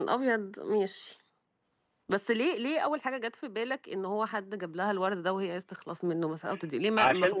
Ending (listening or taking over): taking over